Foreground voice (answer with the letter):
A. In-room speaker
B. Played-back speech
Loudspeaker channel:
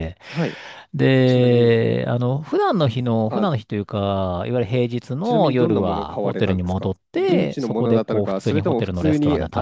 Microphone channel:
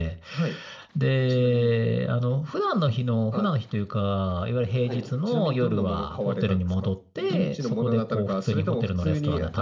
B